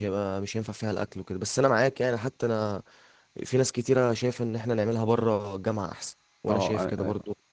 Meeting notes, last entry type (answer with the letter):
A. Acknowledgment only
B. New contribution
B